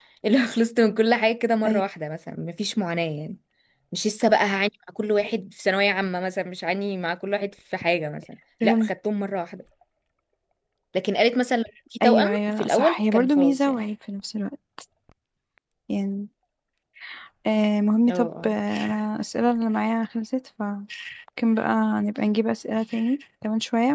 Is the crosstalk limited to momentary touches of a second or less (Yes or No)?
No